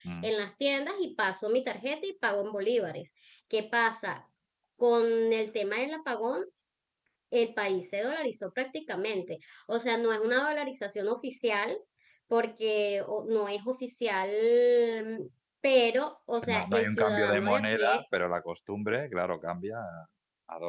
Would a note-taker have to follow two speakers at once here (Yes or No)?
Yes